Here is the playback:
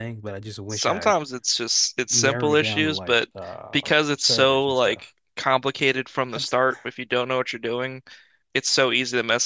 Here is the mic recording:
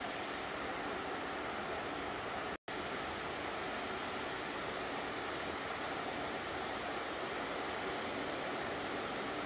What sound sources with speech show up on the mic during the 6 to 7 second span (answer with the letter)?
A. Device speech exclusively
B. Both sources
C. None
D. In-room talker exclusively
C